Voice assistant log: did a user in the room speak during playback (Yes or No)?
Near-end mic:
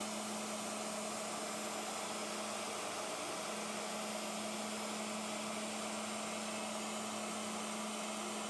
No